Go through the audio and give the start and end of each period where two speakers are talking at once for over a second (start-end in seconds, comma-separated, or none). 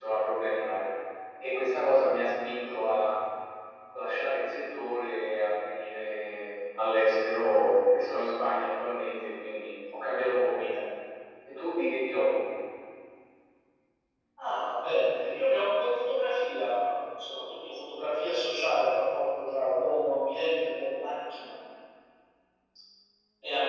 none